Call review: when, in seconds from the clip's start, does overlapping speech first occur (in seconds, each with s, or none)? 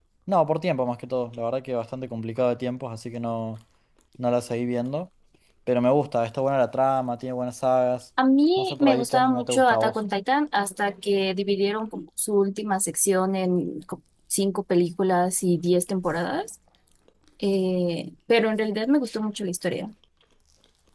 8.6 s